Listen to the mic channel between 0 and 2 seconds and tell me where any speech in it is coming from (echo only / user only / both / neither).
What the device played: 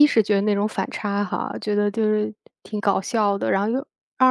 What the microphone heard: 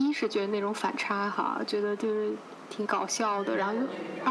echo only